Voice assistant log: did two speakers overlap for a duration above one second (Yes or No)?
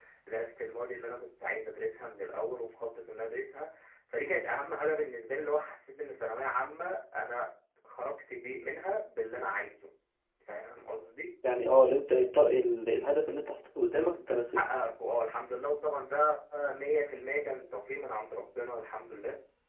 No